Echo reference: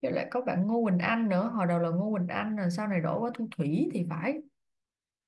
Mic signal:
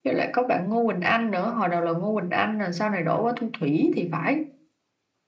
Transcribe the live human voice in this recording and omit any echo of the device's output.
none

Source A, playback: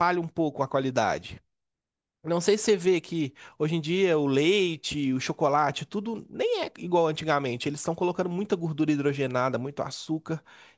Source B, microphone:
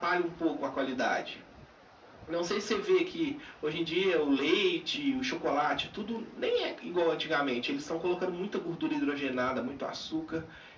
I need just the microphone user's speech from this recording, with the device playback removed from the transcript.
none

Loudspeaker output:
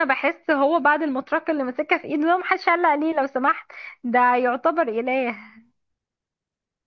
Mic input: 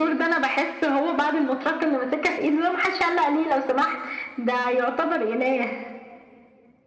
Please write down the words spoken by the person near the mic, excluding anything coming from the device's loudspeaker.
none

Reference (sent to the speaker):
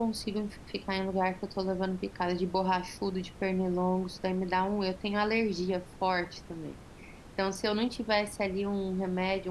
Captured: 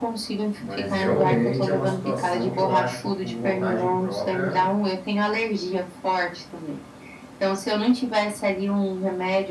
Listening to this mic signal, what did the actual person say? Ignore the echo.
Mas realmente é uma situação que eu acho que por vontade própria

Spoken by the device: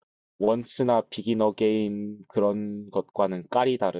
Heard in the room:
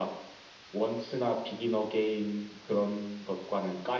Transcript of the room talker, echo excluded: none

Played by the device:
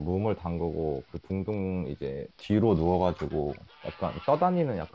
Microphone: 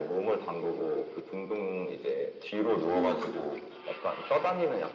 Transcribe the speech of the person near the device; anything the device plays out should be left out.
응,

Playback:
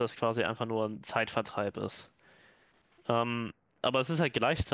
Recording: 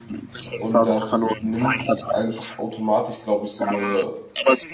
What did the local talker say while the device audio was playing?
Und das nimmt einfach automatisch, glaube ich, so eine

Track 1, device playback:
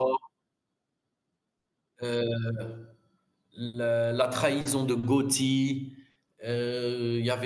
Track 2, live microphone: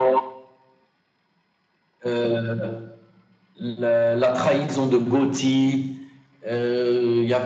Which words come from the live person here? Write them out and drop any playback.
none

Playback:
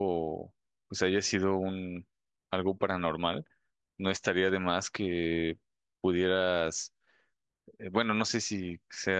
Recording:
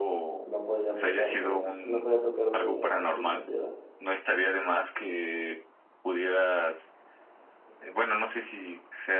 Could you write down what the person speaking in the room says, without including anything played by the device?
no podía tocarme, no podía tocarme aunque quisiera.

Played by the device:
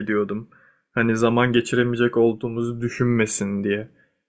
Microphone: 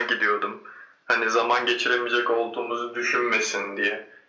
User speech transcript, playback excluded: none

